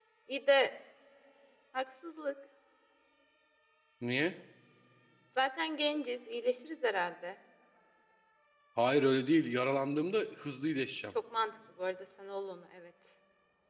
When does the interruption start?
none

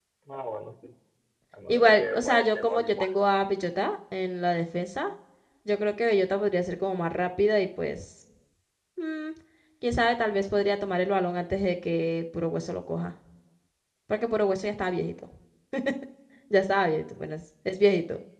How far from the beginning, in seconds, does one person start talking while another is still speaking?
1.7 s

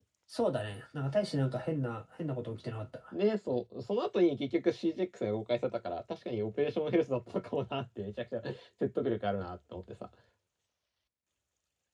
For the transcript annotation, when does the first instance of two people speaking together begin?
none

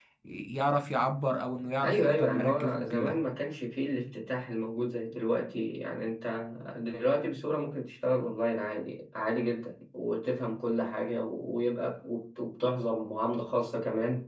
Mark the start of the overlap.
1.8 s

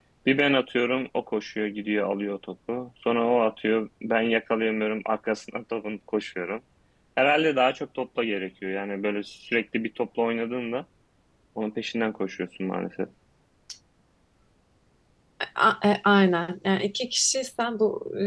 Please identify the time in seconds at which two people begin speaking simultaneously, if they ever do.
none

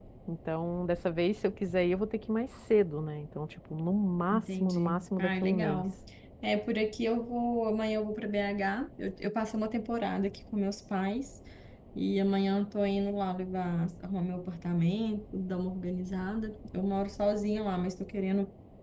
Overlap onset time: 4.3 s

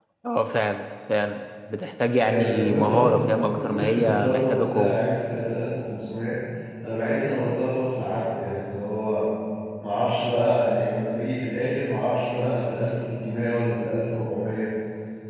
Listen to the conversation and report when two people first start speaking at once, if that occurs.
2.2 s

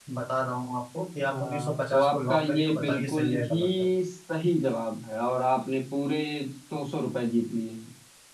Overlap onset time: 1.2 s

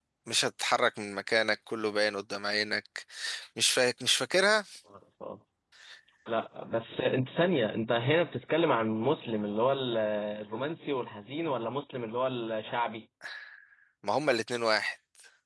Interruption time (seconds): none

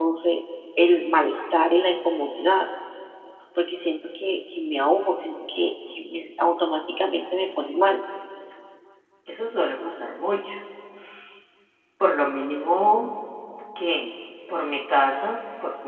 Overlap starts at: none

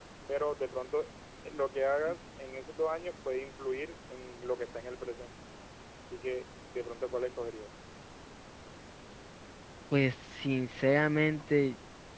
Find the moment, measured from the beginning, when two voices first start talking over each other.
none

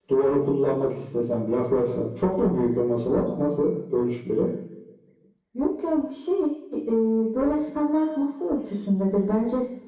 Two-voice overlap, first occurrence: none

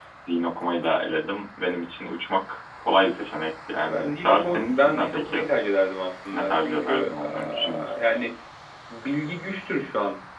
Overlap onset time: 3.8 s

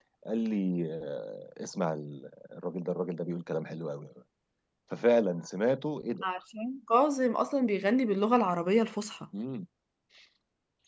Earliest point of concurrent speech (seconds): none

